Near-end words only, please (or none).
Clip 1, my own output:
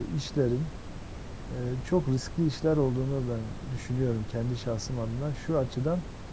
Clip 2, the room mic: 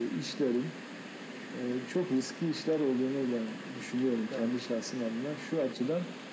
Doğru.